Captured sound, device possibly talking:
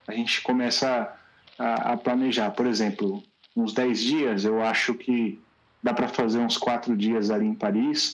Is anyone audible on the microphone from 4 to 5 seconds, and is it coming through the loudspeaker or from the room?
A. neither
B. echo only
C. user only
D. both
B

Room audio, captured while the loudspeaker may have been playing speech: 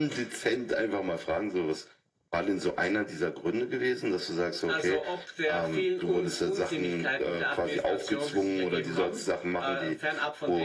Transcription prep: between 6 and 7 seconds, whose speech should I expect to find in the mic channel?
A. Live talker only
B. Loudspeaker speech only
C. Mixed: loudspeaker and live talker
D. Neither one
B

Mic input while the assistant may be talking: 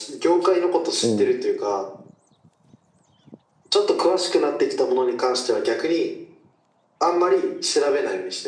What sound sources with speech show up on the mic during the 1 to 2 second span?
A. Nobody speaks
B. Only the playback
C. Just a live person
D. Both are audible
D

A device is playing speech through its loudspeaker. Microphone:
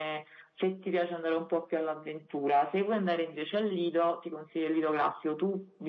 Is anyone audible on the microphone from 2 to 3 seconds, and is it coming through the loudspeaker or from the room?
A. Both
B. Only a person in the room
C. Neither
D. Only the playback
D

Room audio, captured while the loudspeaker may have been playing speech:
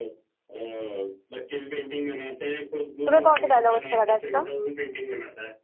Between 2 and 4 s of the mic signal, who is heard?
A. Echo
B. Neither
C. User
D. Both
D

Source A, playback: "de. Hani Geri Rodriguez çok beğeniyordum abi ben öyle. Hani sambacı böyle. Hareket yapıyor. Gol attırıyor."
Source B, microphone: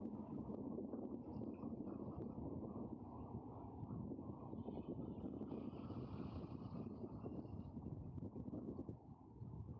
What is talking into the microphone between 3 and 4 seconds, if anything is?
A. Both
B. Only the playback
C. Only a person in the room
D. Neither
D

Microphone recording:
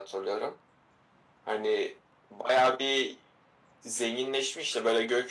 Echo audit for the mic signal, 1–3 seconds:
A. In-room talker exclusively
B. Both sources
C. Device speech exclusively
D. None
C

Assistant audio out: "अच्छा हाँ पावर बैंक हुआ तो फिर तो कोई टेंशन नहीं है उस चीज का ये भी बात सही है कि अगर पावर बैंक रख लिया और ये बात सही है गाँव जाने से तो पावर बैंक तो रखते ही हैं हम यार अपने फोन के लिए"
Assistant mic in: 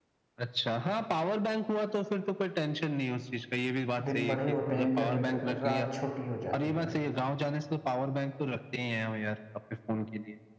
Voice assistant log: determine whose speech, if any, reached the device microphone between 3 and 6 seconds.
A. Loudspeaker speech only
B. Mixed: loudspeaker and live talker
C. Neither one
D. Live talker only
B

